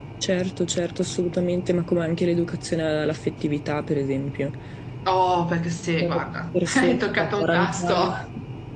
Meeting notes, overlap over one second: present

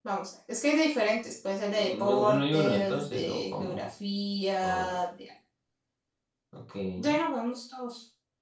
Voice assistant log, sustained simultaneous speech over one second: present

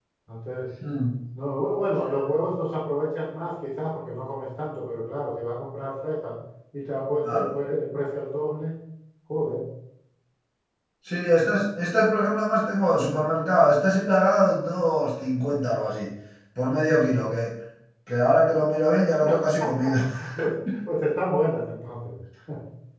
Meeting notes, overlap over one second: none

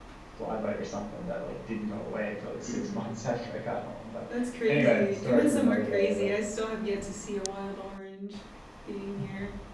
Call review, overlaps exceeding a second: present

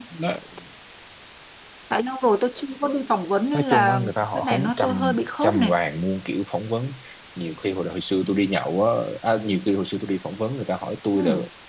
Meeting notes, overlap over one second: present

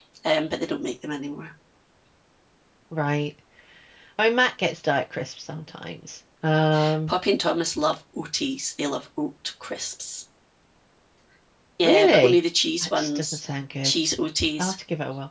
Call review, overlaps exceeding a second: none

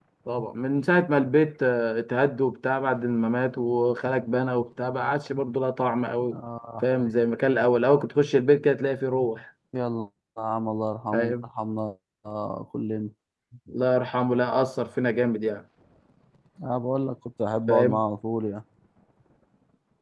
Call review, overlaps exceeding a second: none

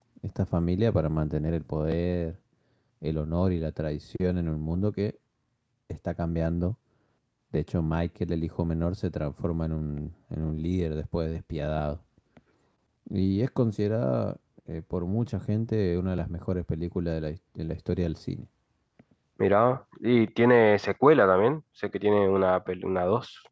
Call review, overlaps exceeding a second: none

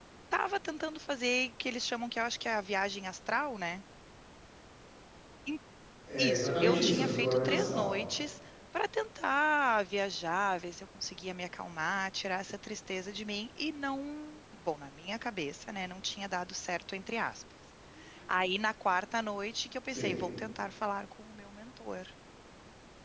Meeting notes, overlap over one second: present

